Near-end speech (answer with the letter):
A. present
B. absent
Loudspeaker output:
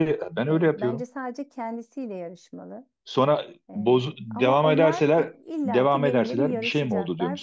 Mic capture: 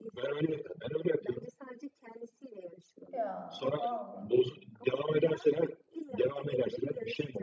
A